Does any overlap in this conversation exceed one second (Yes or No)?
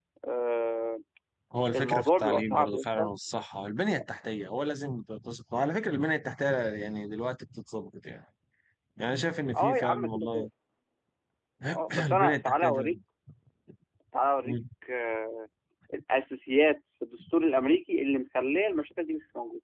Yes